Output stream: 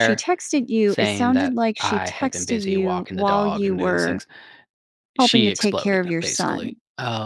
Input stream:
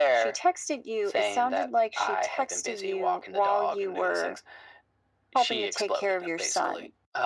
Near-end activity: none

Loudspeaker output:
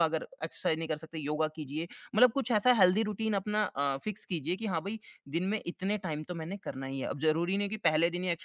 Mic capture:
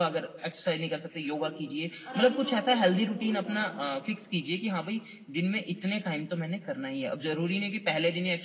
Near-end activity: present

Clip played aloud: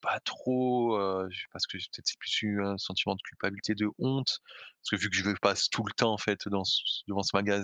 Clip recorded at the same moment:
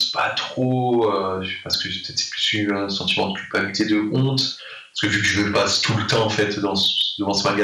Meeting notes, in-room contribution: none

